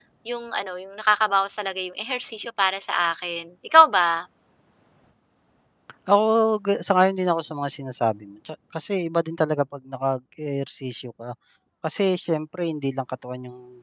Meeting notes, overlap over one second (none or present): none